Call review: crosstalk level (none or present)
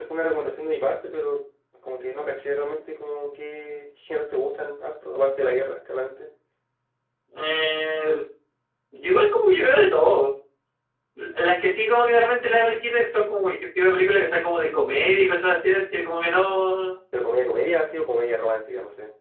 none